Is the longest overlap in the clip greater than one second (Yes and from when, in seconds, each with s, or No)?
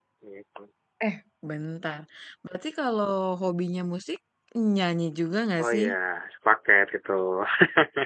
No